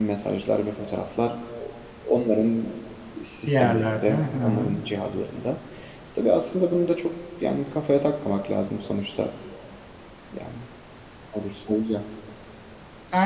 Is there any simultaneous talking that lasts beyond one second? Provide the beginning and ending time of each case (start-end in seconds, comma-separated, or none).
3.5-4.8